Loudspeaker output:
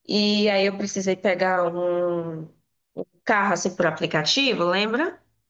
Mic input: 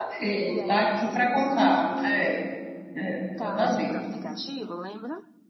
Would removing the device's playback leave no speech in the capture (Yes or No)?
No